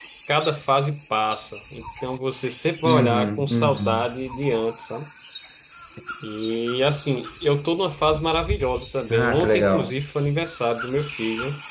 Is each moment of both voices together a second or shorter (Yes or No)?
No